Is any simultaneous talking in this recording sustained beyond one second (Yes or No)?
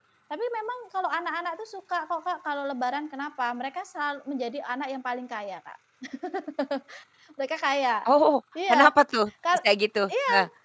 No